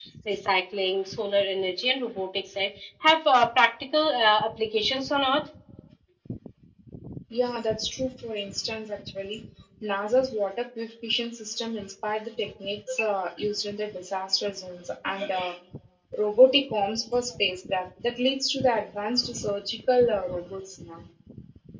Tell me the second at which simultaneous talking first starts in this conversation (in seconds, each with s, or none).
none